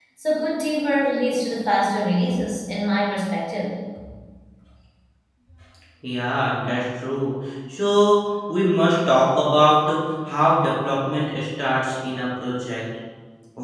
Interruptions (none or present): none